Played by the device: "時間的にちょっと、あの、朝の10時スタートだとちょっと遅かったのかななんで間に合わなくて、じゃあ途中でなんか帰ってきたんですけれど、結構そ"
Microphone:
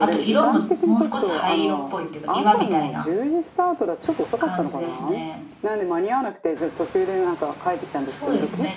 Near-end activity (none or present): present